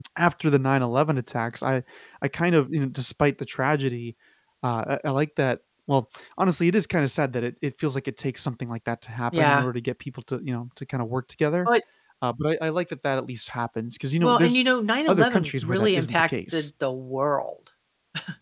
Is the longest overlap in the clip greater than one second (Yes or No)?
Yes